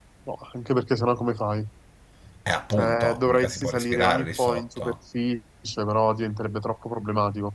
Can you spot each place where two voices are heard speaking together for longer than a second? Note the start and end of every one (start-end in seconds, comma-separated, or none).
2.8-4.9